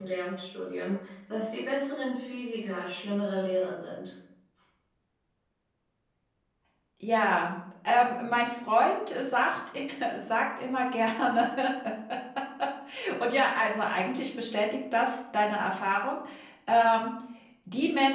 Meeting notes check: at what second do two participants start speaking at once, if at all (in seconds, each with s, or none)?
none